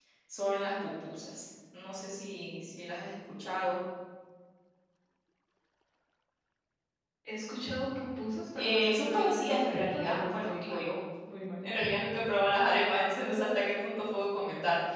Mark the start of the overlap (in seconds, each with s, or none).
8.6 s